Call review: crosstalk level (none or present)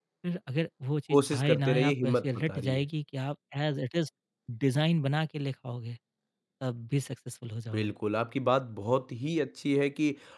present